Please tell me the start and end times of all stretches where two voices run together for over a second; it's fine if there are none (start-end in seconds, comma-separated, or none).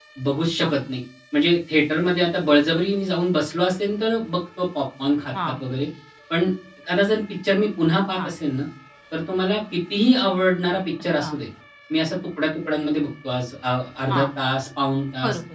none